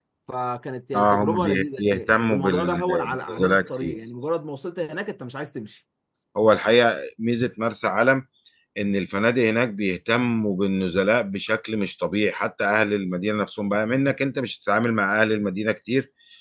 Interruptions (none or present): present